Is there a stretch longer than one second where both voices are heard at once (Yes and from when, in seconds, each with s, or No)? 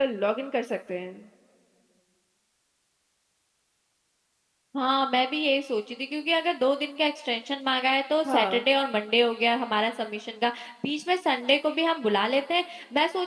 No